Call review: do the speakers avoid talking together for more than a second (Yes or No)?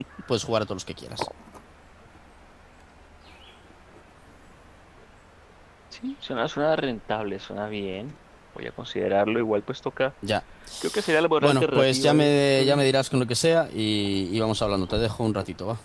No